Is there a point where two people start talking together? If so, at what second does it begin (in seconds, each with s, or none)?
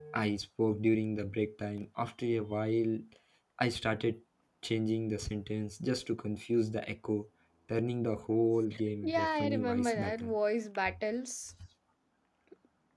9.0 s